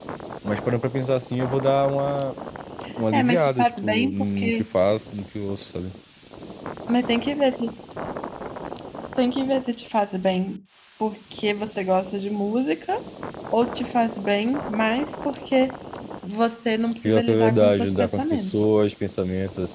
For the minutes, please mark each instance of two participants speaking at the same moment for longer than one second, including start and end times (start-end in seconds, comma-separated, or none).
3.1-4.5, 17.0-18.7